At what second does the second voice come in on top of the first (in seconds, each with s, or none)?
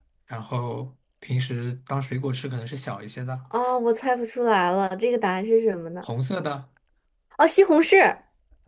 none